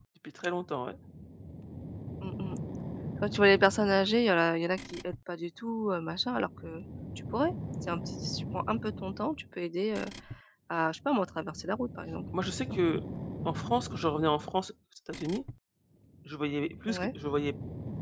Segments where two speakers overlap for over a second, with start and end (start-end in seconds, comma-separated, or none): none